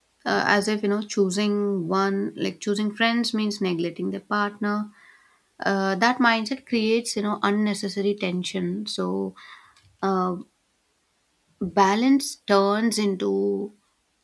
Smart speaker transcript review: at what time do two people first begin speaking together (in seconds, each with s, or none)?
none